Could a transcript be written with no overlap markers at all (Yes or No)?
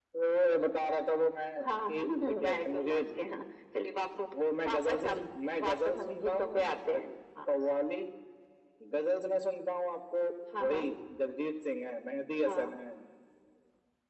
No